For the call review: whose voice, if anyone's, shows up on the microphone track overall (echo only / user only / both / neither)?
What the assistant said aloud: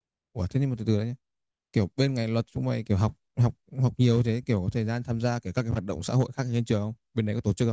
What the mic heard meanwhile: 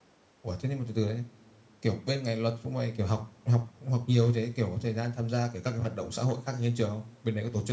echo only